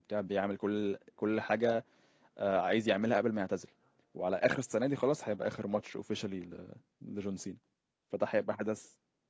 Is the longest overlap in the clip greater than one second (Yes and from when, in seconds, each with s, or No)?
No